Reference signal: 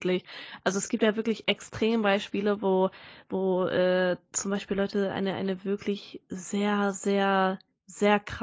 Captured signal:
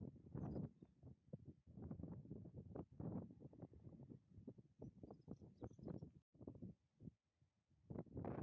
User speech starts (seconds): none

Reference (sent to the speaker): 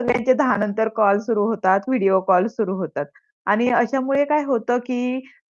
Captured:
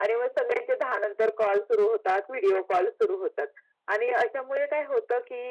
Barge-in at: none

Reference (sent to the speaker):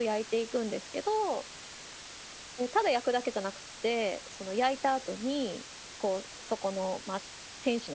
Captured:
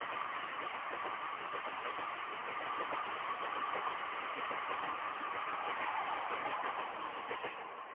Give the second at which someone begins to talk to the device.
none

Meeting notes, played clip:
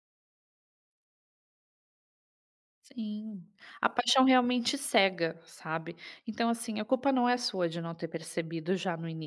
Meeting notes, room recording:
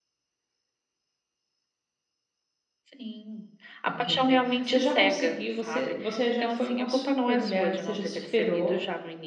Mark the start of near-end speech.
3.8 s

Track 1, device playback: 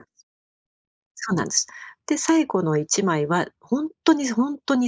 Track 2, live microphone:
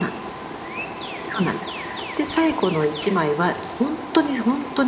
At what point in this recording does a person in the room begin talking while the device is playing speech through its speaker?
none

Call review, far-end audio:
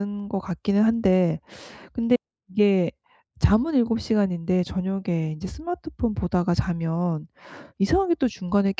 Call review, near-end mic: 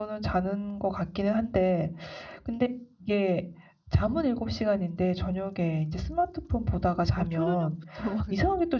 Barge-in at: 7.1 s

